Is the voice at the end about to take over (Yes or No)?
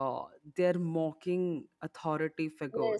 Yes